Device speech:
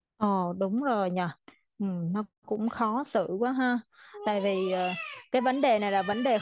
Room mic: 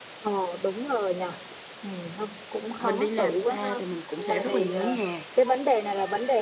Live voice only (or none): mình đi làm xa thì mình cũng sẽ rất là nhớ nhà